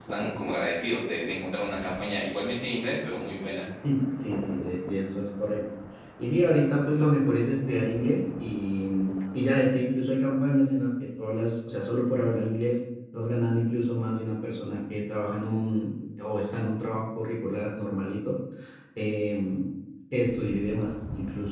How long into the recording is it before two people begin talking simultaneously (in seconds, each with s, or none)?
none